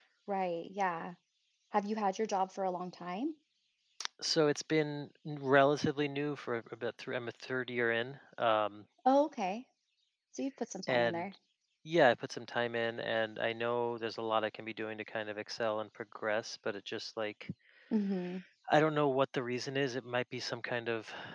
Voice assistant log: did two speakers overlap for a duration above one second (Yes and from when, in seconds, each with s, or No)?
No